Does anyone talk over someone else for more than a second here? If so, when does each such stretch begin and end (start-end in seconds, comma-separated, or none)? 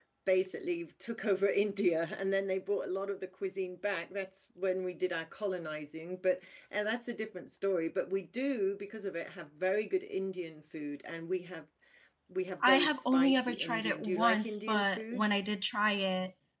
12.6-15.2